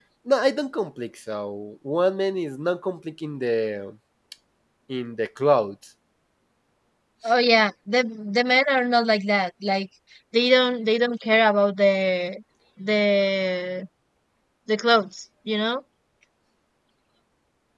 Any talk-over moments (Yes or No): No